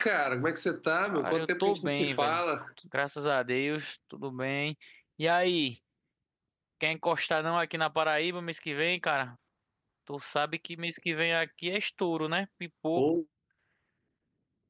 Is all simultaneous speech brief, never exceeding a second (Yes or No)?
No